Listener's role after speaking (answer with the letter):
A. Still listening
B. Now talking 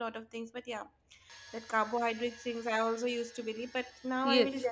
B